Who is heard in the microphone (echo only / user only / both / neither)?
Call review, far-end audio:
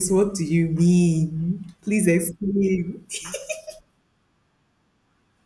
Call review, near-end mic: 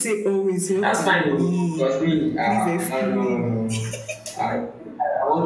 both